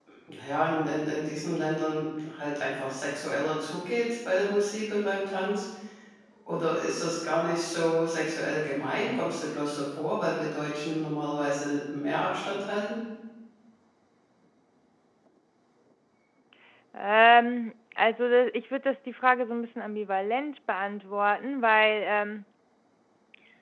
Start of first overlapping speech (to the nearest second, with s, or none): none